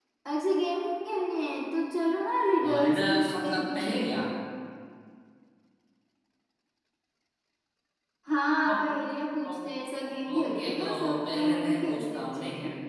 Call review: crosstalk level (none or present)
present